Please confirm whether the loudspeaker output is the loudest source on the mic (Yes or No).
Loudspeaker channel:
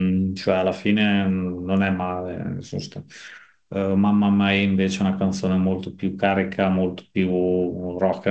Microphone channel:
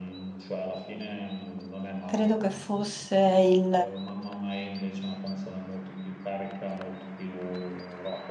No